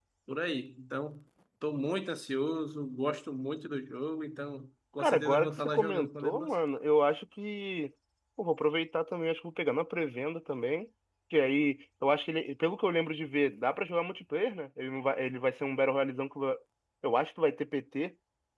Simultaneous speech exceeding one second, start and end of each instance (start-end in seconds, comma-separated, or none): 5.0-6.6